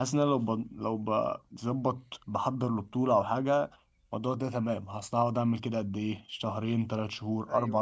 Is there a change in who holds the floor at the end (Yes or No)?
No